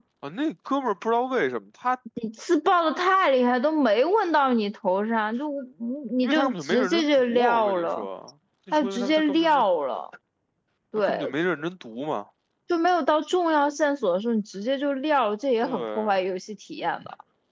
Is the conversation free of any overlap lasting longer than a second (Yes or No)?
No